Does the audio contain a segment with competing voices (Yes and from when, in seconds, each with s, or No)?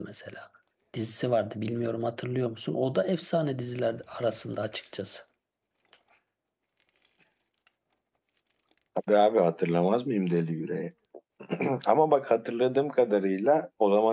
No